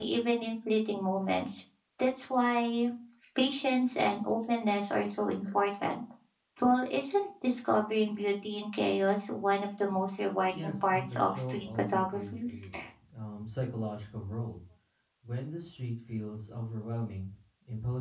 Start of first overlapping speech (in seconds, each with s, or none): 10.5 s